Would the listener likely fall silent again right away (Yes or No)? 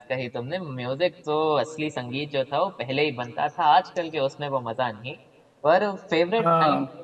Yes